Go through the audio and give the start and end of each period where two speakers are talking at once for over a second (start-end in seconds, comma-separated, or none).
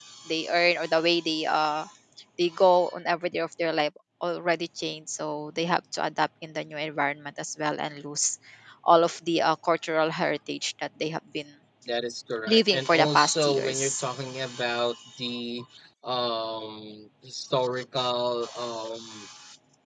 12.5-14.0